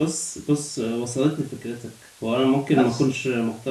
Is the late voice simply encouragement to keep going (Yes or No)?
Yes